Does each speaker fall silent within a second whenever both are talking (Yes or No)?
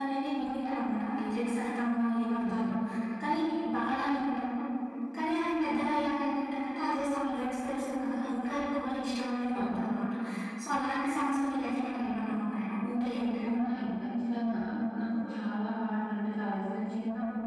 Yes